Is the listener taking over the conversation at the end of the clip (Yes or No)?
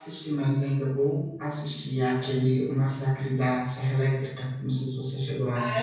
Yes